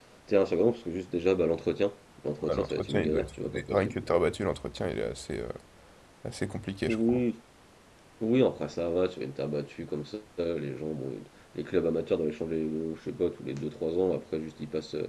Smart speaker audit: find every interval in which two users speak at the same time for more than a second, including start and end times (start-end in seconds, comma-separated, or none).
2.4-4.0